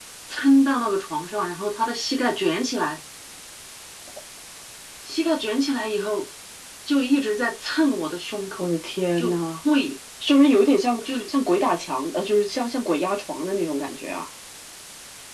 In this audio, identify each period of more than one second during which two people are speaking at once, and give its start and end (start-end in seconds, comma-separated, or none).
none